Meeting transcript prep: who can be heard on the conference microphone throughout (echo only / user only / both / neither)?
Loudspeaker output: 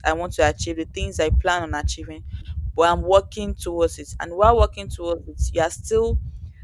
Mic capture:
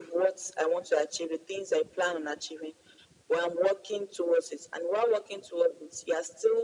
echo only